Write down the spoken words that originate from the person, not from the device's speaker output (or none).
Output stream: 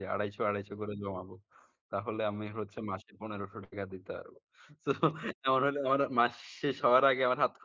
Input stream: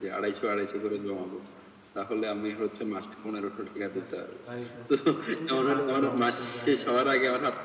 যাক তাই হোক। এই যে, টাকা জমাইতে যায় আপনি যে,